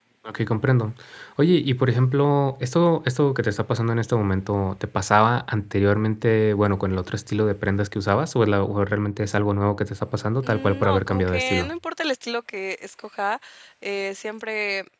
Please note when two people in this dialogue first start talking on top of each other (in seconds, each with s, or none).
10.4 s